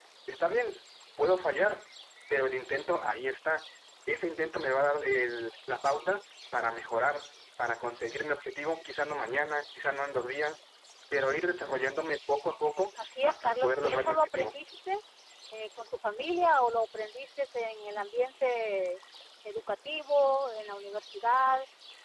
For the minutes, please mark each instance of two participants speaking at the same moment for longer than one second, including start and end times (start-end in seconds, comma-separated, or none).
13.2-14.5